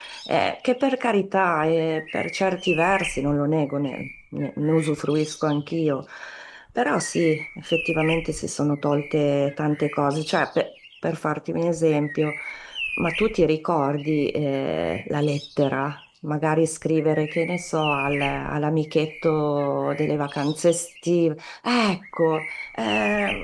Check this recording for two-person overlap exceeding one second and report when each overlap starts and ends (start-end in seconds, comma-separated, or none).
none